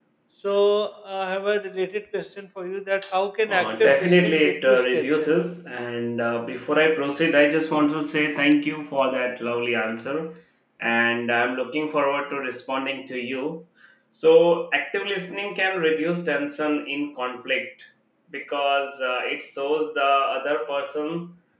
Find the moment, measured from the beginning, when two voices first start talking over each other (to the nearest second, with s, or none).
3 s